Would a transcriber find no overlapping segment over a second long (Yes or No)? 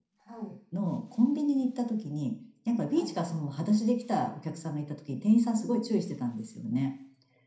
Yes